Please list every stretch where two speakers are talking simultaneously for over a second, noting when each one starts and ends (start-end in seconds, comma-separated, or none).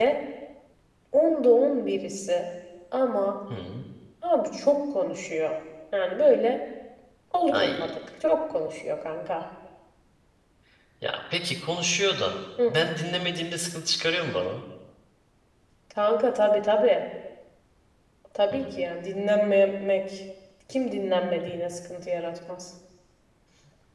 none